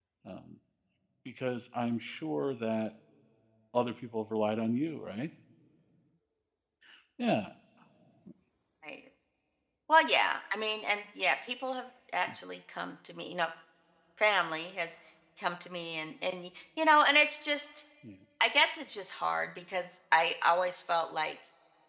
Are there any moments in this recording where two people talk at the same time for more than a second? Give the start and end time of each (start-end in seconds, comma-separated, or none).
none